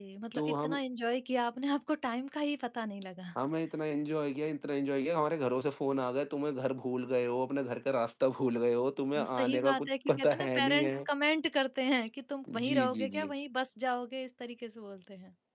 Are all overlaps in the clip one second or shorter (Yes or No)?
No